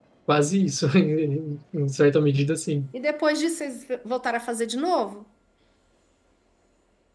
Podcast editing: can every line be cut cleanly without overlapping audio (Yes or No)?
Yes